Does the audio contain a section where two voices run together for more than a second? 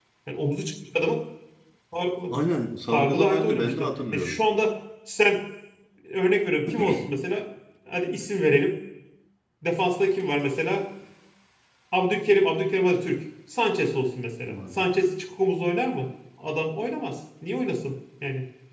Yes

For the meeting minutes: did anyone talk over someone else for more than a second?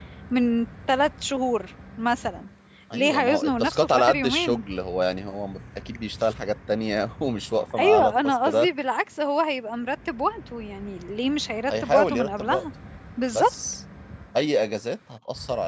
Yes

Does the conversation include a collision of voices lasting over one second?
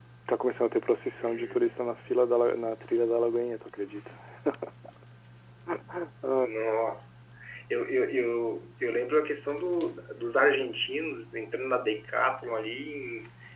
No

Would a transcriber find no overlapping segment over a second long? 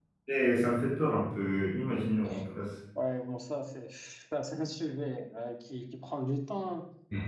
Yes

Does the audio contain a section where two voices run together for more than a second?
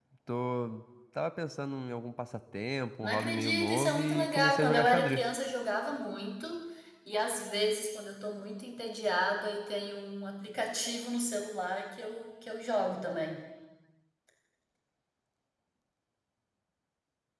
Yes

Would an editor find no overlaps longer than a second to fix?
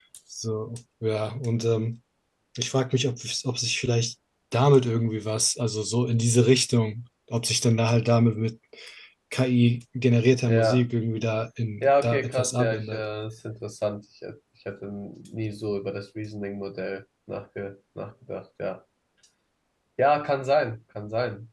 No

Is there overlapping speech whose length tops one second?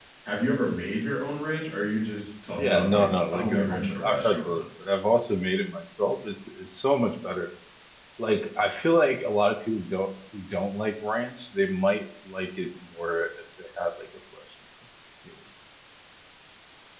Yes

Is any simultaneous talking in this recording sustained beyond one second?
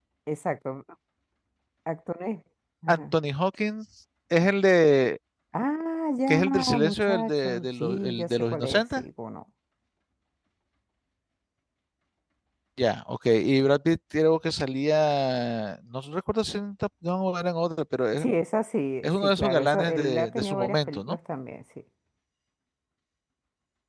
Yes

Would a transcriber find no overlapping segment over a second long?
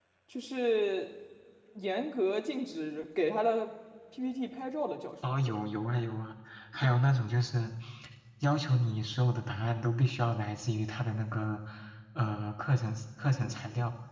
Yes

